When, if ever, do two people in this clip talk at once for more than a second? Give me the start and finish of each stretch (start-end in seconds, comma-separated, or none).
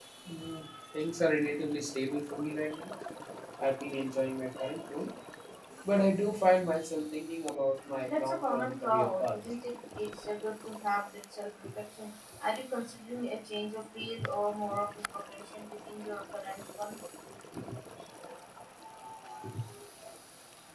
8.0-9.3